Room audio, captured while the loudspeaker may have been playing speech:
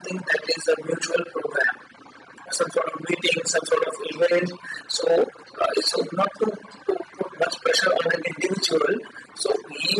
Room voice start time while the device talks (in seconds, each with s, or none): none